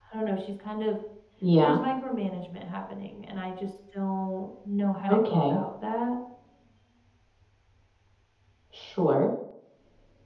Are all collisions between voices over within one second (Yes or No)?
Yes